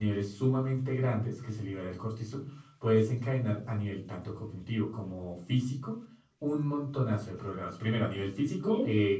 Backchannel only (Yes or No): Yes